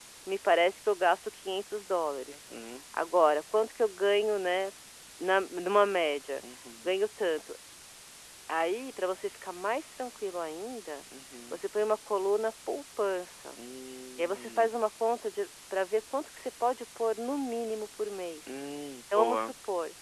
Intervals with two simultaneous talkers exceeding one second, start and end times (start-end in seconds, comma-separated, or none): none